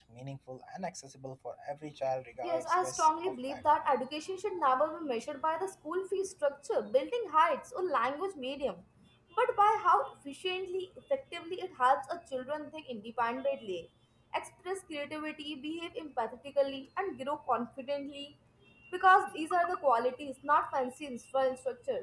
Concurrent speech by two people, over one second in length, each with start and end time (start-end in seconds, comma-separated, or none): 2.4-3.9